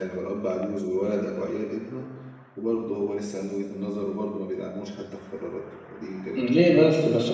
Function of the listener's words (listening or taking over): taking over